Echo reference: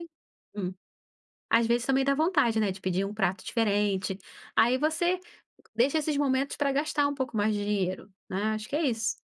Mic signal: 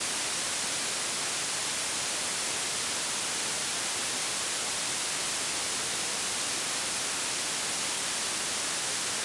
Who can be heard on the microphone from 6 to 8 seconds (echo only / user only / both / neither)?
neither